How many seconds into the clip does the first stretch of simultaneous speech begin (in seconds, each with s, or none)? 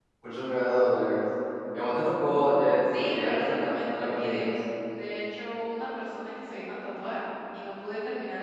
2.9 s